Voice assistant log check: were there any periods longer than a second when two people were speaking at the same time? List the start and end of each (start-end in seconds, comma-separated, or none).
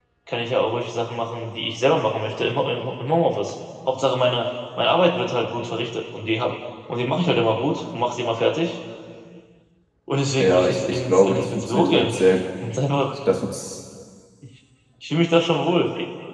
10.4-12.1